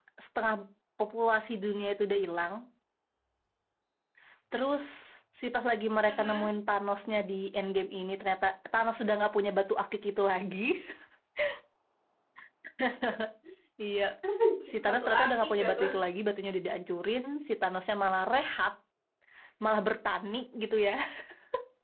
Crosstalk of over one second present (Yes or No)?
Yes